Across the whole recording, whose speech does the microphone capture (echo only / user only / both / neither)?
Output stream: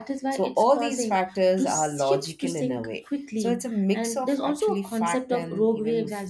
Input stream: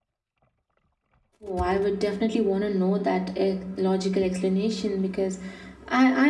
user only